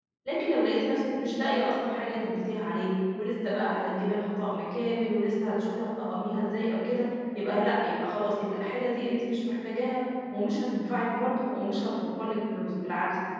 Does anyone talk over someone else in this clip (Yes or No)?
No